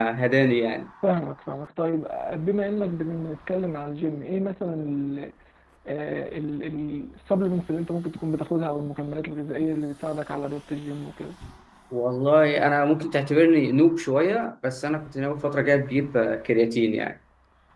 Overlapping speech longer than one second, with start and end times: none

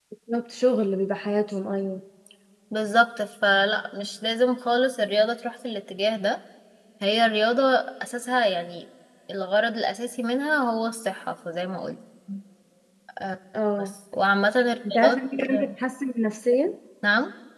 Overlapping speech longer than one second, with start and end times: none

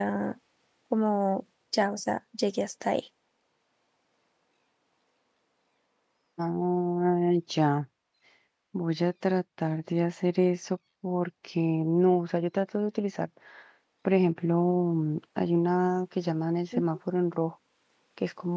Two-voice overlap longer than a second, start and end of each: none

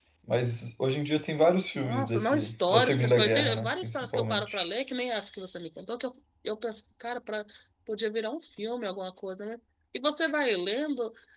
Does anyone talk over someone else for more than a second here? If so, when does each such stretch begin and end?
1.8-4.6

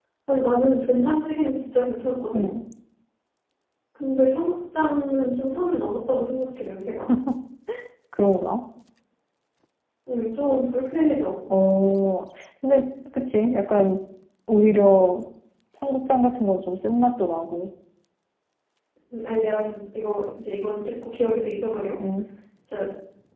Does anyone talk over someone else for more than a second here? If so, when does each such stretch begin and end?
none

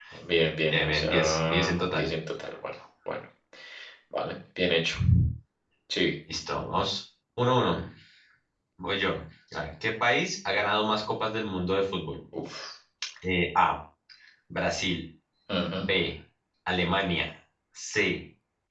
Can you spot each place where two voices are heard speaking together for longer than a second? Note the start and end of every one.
0.7-2.1

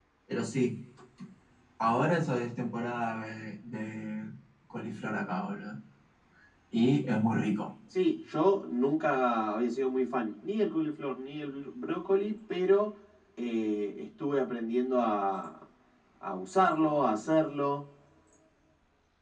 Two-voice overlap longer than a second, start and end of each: none

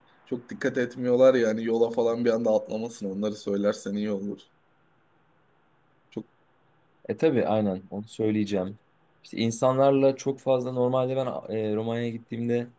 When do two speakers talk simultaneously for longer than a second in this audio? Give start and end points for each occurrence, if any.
none

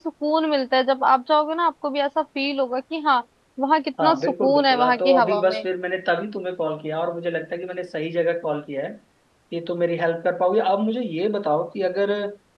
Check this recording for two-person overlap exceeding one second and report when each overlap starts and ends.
4.0-5.6

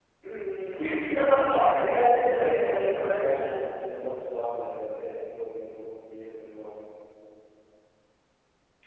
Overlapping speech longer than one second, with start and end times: 2.0-3.7

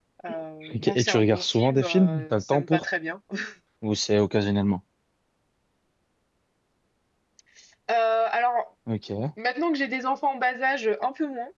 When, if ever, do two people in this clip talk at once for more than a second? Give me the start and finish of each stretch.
0.7-2.8

